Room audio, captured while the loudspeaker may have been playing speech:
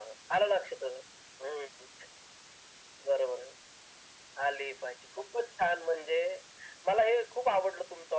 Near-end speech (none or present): none